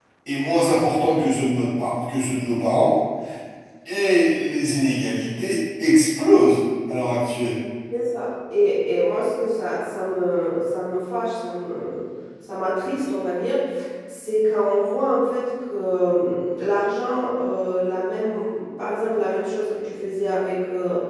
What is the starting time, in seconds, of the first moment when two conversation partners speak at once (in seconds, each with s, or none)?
none